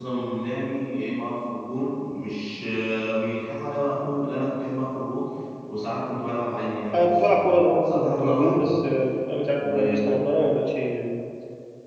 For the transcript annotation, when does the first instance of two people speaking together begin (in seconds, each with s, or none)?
6.9 s